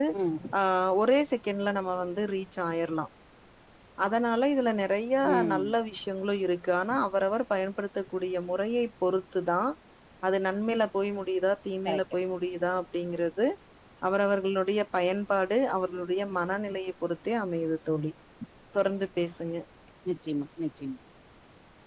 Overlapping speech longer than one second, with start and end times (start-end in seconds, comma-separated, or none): none